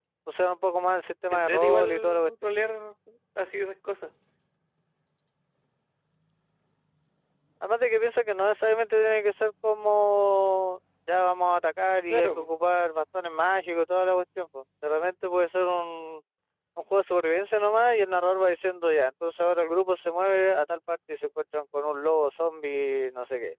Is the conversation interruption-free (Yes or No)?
No